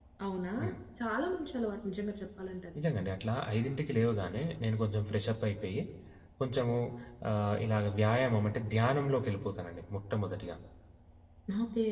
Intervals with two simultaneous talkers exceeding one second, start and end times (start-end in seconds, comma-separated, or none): none